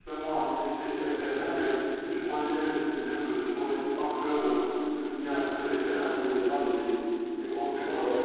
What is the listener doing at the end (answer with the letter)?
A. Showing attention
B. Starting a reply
A